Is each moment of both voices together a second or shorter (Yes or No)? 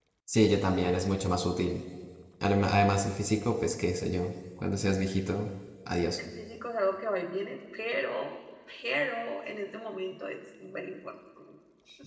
Yes